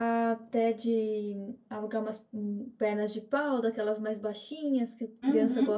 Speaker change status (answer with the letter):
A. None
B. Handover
B